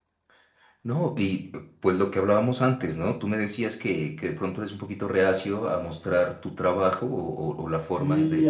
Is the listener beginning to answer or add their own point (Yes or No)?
Yes